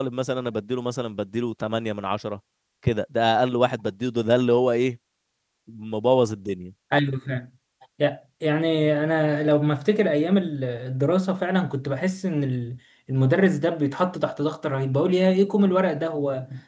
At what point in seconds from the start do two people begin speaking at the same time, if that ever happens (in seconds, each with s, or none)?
none